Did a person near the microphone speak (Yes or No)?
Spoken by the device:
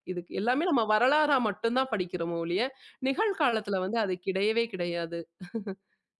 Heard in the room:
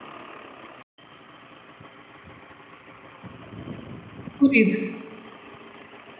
Yes